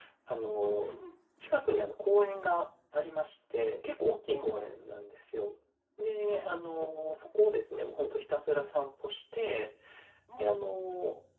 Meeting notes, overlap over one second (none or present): none